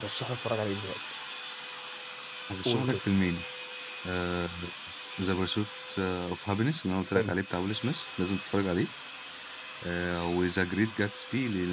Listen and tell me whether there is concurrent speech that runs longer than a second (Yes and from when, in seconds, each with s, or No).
No